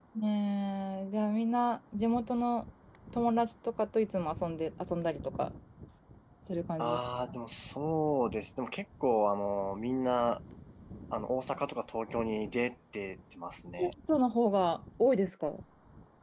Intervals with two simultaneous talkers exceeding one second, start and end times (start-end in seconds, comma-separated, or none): none